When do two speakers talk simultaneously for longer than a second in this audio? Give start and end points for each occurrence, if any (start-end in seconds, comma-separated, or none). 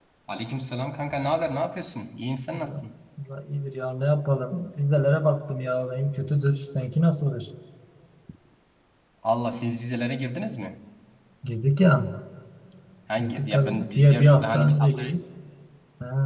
13.2-15.1